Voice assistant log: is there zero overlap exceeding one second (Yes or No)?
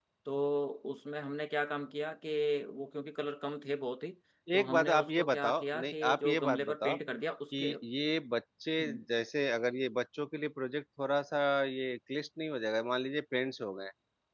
No